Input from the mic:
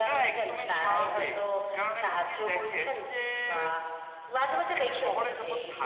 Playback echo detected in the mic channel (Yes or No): Yes